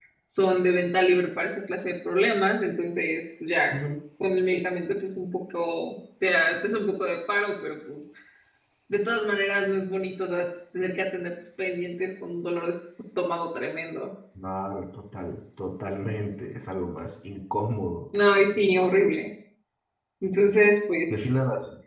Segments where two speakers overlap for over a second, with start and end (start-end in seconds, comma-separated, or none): none